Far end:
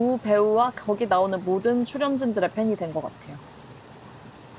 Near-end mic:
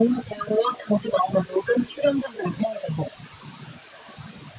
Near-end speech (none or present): none